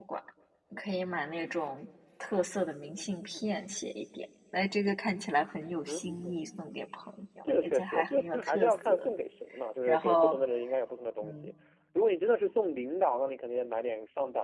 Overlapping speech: Yes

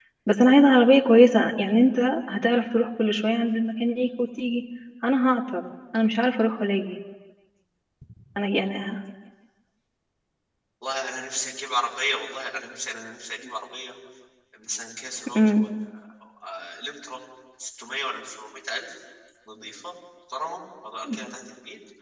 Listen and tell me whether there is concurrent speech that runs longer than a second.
No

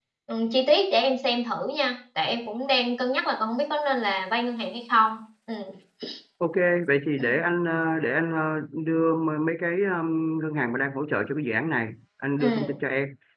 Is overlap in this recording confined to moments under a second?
Yes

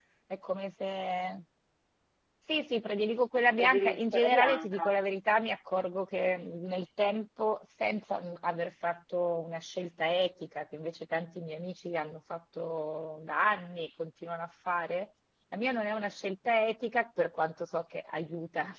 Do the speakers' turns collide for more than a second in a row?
Yes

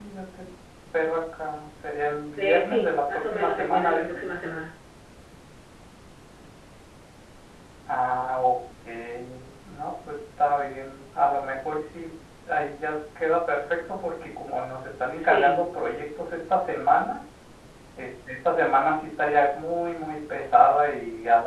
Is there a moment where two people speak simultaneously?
Yes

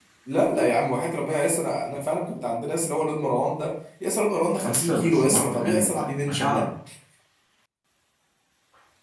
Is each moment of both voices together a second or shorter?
No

